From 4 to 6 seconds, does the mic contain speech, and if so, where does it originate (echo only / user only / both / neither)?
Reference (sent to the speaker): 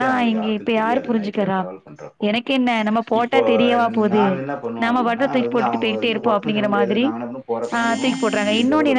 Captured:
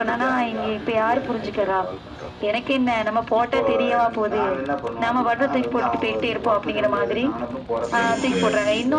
echo only